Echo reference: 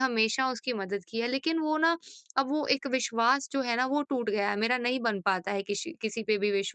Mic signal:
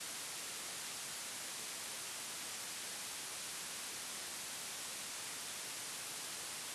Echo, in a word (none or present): none